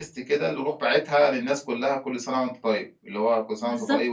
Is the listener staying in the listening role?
No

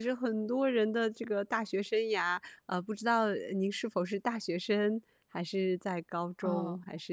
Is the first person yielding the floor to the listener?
Yes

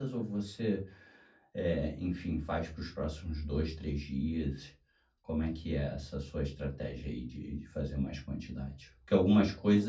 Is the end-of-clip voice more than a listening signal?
No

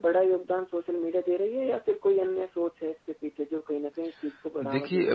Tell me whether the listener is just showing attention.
No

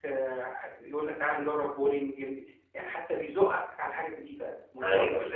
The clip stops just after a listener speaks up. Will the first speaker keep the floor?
Yes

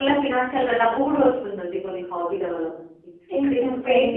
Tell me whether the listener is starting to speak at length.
No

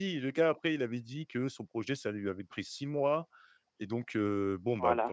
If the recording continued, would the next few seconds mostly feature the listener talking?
No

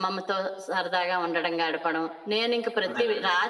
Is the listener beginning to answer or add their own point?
No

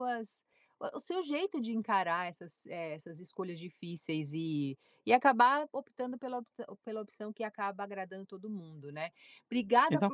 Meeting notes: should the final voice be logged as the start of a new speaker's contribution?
No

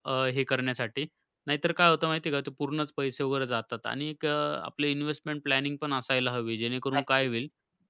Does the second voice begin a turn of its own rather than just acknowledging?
No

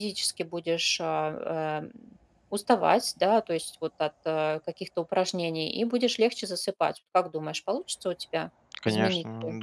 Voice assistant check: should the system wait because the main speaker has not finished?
No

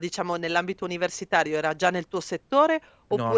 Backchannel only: Yes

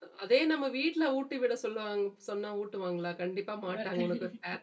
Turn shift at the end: No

